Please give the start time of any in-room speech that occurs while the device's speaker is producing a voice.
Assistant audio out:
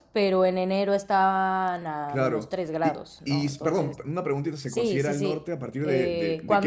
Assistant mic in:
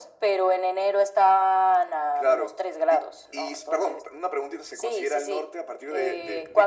none

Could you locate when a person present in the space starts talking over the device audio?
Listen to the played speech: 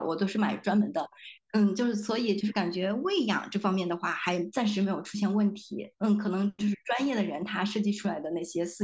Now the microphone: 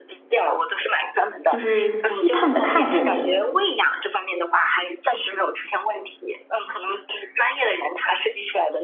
1.4 s

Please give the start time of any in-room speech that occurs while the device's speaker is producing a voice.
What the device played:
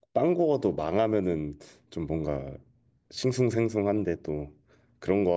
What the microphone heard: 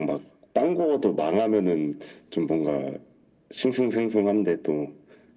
none

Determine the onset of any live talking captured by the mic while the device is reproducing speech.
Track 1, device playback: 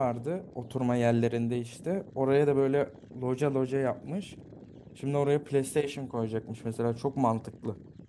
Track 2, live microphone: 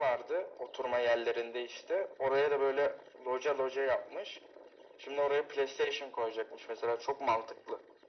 none

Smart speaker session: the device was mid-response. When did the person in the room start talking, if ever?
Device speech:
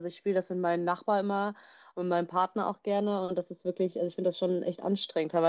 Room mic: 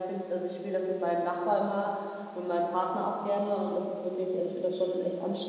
none

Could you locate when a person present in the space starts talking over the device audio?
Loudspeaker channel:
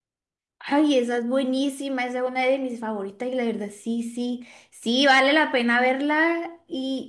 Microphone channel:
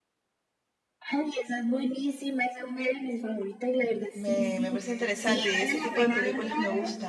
4.1 s

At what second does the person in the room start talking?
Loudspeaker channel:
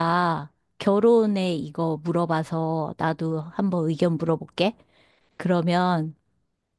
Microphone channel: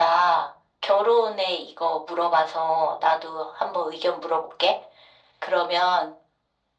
none

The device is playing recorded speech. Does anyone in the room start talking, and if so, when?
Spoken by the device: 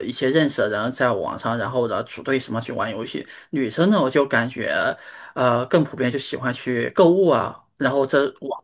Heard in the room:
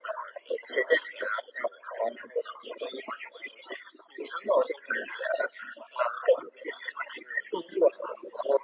none

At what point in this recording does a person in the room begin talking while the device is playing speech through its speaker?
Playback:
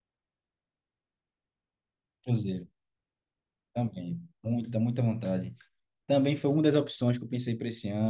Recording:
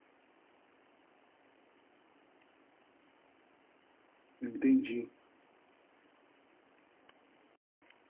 4.4 s

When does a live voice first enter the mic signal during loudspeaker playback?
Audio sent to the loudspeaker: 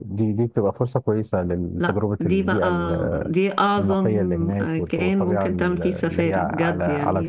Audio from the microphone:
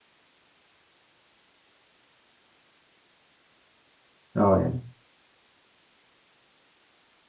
4.4 s

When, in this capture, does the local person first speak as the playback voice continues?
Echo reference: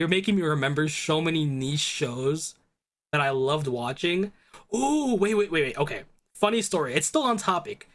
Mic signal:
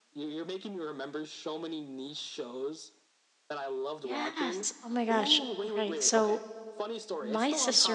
4.0 s

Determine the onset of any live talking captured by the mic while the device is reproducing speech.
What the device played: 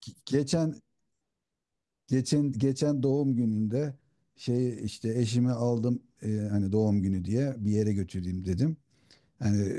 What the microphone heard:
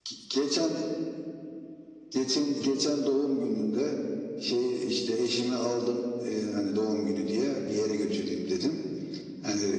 none

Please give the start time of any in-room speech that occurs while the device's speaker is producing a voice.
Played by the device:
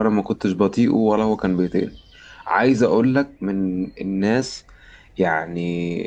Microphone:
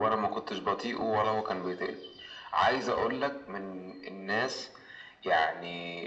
none

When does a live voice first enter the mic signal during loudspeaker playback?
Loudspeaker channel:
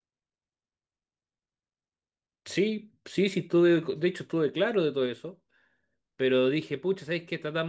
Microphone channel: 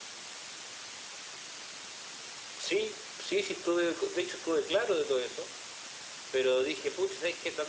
none

